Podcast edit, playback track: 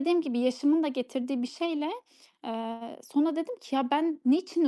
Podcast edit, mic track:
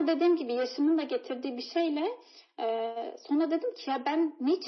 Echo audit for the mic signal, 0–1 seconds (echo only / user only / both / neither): echo only